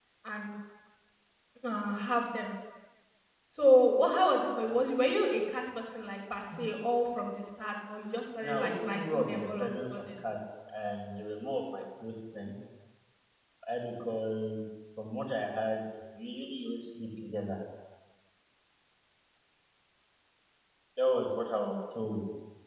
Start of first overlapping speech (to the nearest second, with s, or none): 8 s